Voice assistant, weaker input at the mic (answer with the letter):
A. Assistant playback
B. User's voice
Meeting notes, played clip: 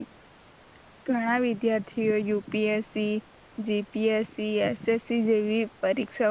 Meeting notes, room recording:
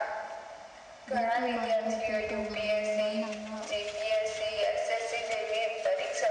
B